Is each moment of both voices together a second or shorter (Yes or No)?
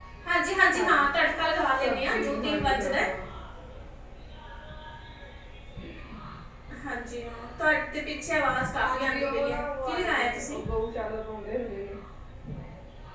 No